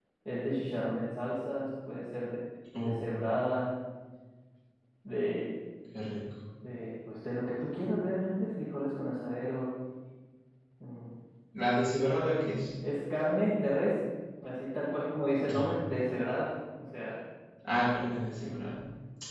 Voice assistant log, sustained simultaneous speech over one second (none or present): none